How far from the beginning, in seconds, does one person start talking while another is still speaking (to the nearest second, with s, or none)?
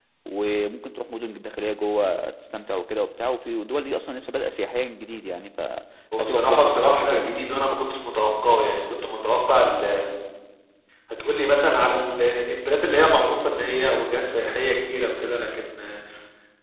6 s